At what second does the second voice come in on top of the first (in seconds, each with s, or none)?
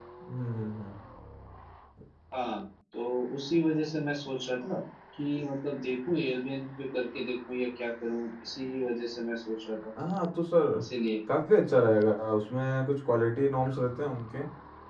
none